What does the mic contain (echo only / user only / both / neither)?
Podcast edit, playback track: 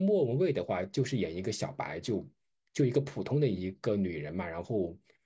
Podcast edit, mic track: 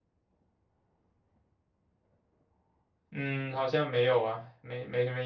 user only